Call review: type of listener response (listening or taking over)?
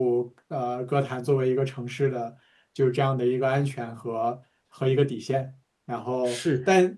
listening